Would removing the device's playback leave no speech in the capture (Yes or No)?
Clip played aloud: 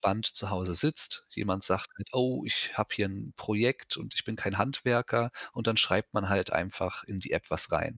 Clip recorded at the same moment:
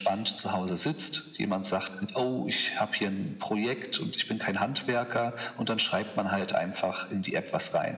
Yes